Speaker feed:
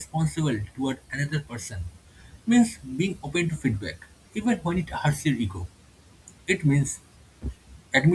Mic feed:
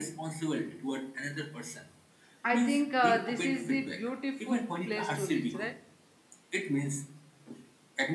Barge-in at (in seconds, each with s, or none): 2.5 s